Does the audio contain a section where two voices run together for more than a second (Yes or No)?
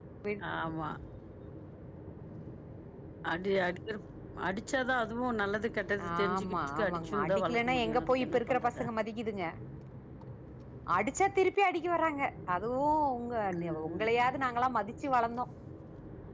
Yes